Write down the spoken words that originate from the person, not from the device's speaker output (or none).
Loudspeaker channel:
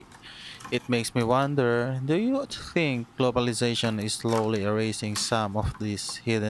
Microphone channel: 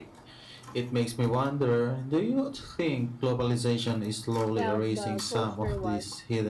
felt the culture was